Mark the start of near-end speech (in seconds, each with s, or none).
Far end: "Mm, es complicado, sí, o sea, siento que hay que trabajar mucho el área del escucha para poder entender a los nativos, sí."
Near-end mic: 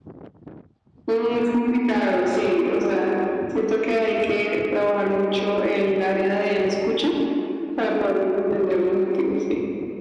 none